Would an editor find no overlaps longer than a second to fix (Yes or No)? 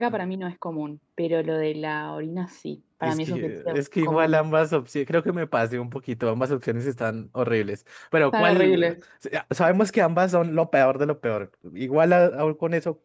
No